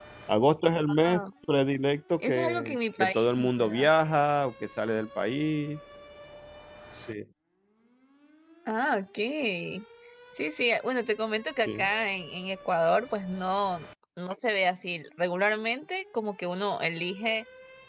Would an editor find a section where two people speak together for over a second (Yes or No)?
Yes